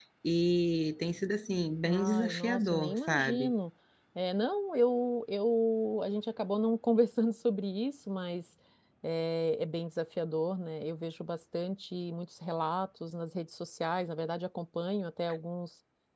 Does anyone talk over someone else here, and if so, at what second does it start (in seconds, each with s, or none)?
1.8 s